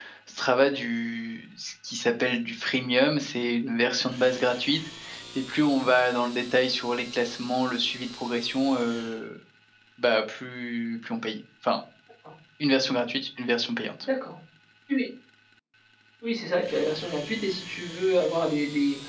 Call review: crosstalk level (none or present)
none